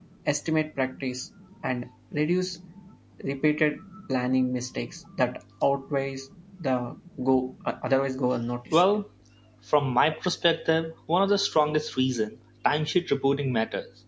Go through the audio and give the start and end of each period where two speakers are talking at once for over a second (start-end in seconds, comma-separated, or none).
none